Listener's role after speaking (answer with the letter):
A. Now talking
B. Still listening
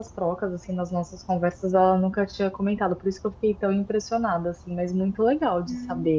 A